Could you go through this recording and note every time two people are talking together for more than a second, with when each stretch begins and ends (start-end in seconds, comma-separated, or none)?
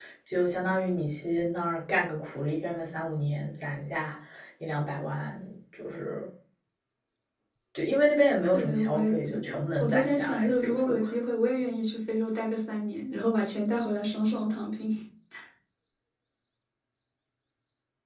8.5-11.0